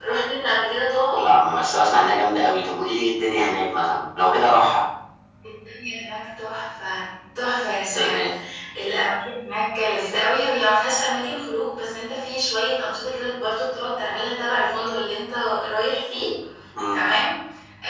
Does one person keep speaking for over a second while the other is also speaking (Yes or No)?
No